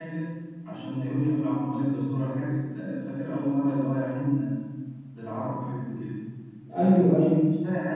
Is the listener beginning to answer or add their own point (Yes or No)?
No